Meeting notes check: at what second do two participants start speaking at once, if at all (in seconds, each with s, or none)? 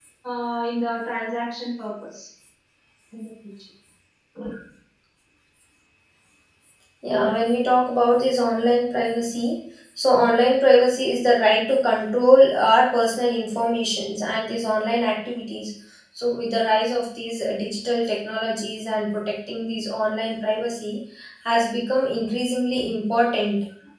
none